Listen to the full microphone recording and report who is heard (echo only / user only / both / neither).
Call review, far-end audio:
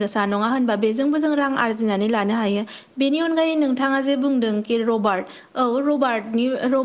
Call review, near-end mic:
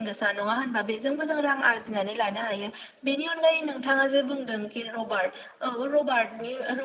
echo only